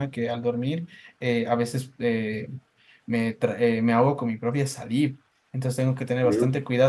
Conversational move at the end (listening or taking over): listening